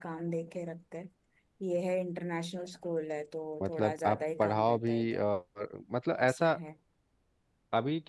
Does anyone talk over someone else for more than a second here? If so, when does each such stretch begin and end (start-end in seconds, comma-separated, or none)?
3.6-5.2